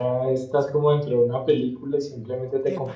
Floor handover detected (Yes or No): No